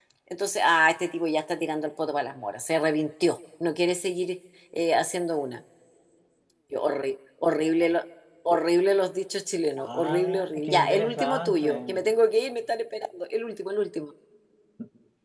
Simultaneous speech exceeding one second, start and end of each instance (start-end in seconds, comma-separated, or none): 9.8-12.0